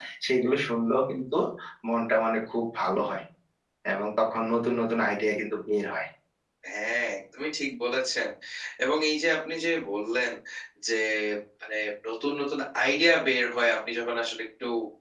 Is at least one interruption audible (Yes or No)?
No